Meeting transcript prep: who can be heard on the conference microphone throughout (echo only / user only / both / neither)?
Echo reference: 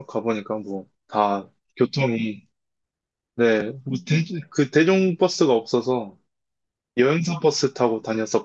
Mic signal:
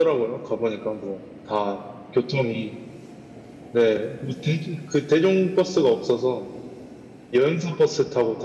echo only